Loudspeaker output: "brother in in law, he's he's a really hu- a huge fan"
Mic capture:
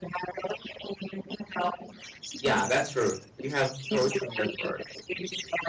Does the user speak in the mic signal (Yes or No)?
Yes